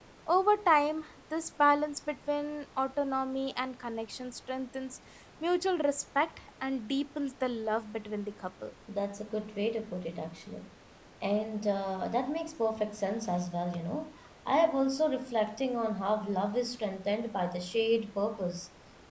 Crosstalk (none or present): none